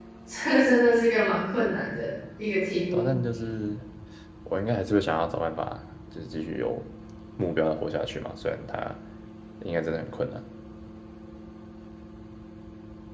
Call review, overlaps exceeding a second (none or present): none